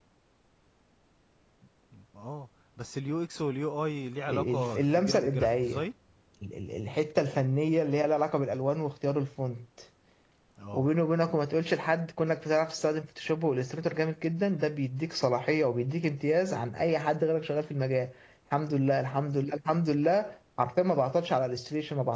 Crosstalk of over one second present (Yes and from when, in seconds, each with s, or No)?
Yes, from 4.3 s